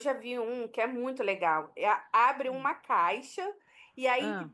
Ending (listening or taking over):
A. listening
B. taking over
A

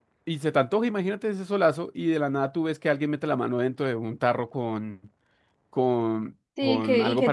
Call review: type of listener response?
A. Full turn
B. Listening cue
A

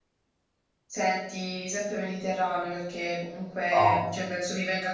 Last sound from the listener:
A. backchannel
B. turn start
A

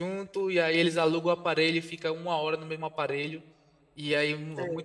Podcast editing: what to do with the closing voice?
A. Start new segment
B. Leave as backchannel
B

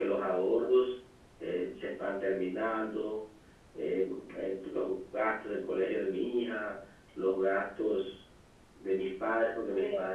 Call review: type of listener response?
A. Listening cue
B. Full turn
A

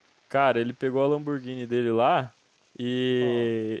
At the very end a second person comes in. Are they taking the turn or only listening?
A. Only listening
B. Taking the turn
A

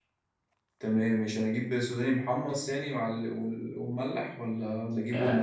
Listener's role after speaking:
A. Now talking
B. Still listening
A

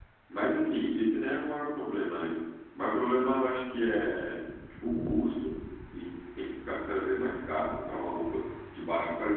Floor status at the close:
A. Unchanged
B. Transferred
A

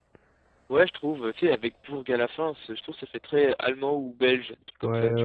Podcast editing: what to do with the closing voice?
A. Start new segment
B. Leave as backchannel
A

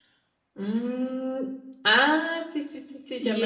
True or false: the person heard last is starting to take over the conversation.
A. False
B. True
B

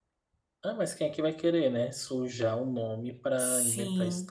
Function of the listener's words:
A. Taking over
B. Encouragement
A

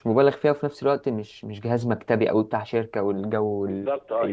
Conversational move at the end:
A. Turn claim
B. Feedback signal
A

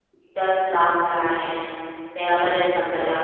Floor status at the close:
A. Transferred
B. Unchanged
A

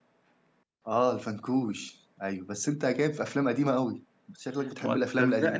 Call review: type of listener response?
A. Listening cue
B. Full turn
B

